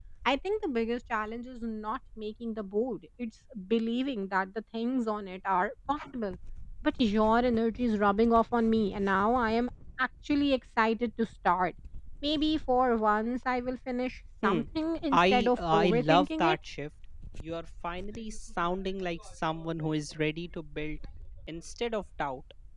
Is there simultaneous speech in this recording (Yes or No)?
Yes